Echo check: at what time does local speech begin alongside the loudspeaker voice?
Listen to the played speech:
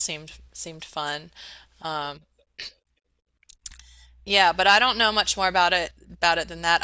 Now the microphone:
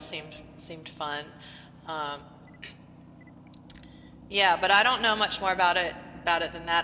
none

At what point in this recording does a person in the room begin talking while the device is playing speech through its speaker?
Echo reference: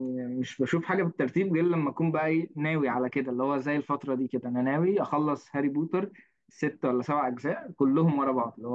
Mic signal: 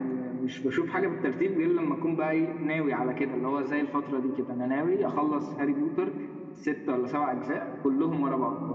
none

